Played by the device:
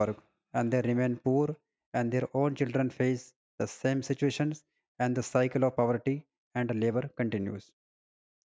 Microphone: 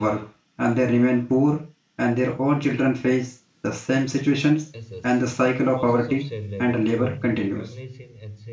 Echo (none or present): present